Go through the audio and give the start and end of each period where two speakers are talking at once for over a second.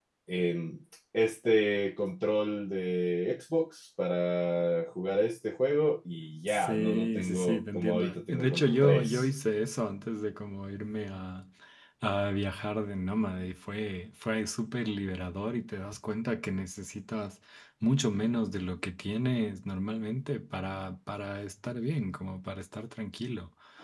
6.5-9.3

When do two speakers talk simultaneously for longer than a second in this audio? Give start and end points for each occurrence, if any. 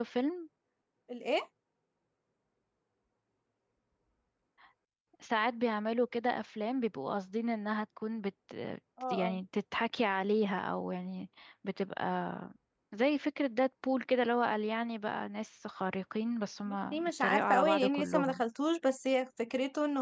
16.7-18.4

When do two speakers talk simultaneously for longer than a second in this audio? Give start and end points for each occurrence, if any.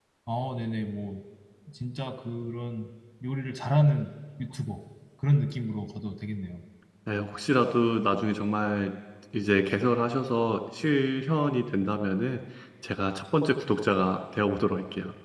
none

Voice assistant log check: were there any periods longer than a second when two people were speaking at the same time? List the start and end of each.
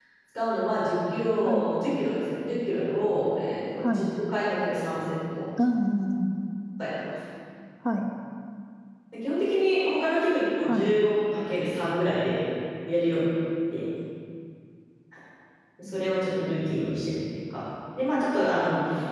none

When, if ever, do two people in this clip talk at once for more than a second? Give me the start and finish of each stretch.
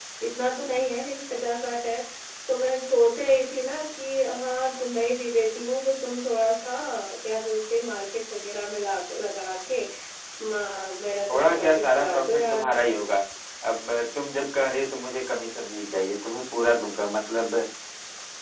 11.3-12.7

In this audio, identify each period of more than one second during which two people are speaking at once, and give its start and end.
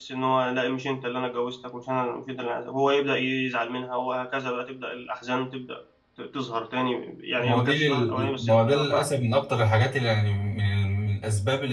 7.4-9.1

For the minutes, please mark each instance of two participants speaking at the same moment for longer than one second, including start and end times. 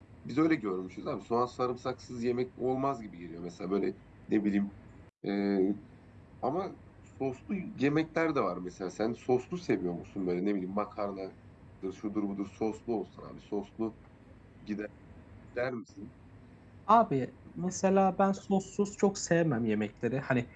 none

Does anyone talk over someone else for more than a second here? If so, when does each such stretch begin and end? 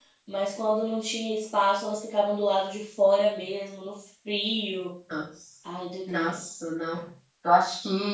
none

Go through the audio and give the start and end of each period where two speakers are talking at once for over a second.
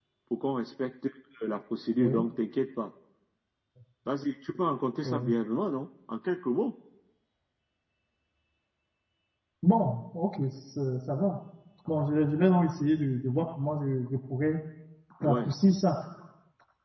none

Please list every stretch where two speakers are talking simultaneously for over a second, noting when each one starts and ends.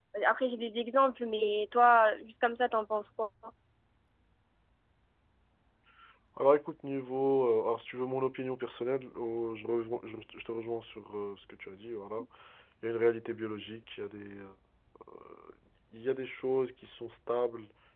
none

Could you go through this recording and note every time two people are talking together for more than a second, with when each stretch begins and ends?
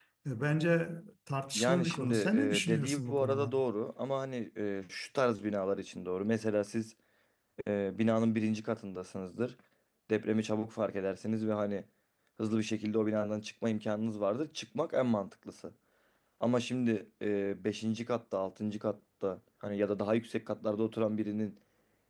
1.6-3.5

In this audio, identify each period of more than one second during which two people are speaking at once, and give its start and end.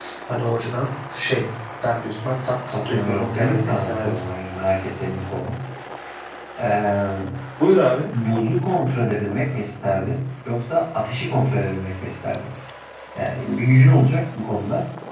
2.9-4.2

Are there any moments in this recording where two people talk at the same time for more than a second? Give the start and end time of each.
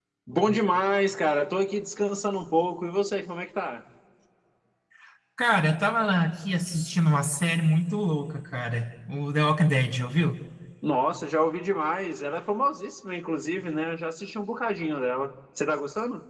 none

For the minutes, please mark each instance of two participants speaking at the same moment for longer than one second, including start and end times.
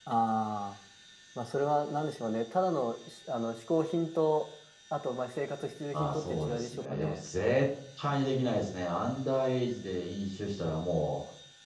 5.9-7.2

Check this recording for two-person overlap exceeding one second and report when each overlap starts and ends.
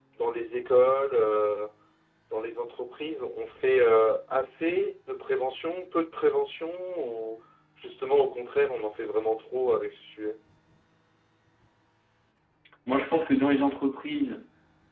none

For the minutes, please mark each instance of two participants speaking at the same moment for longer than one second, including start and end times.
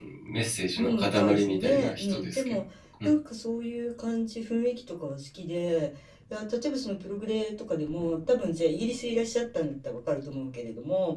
0.8-2.6

